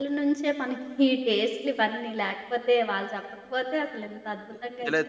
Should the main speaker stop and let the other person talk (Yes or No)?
Yes